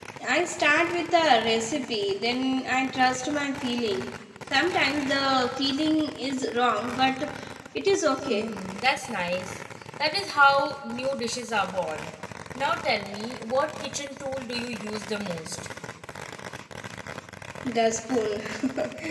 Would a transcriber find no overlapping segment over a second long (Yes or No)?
Yes